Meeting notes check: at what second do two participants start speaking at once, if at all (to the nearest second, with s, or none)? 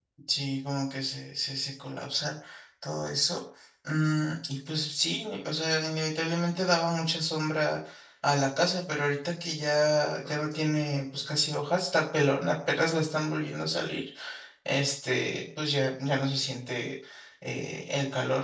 none